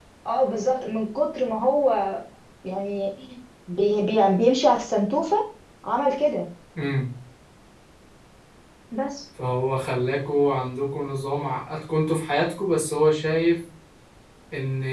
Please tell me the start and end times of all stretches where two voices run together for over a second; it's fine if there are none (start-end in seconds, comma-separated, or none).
none